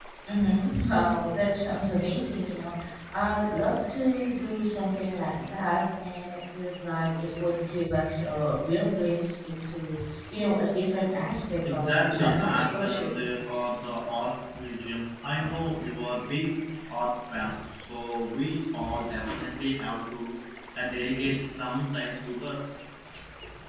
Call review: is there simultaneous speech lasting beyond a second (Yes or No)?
Yes